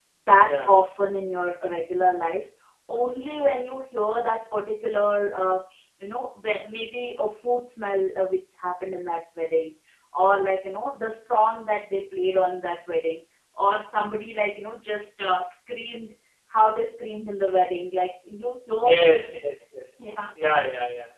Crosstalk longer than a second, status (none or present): none